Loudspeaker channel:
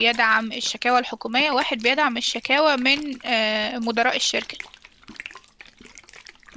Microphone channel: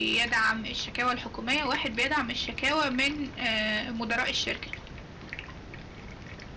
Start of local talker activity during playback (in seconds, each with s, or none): none